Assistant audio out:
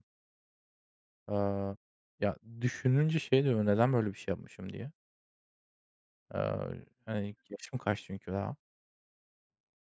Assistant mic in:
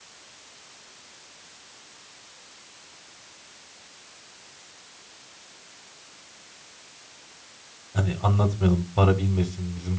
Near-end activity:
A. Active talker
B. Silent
A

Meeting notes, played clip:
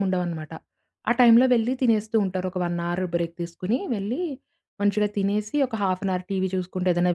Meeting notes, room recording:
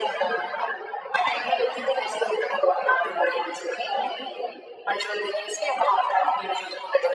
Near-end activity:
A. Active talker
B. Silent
B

